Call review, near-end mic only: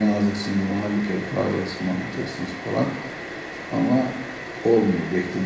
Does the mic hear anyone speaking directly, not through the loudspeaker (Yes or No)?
No